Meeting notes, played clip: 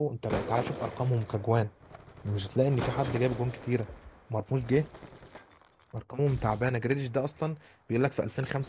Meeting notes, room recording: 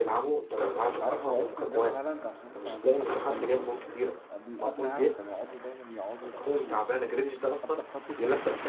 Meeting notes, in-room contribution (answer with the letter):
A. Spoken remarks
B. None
A